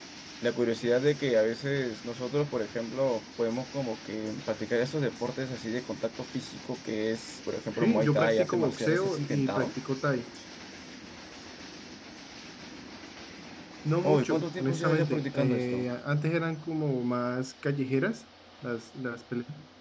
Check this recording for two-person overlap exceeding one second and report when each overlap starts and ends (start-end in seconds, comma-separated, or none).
7.7-9.7, 14.0-15.9